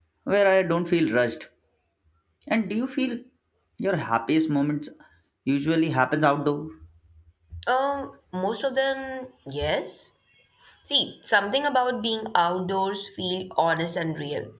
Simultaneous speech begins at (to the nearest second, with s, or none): none